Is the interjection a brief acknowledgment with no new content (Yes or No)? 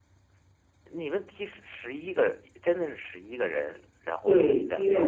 No